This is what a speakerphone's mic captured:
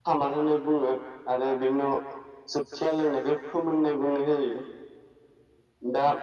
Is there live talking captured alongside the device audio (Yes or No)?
No